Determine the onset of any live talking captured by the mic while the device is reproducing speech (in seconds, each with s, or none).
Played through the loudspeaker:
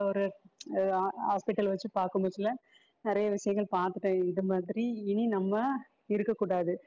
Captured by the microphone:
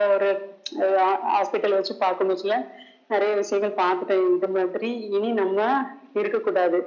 none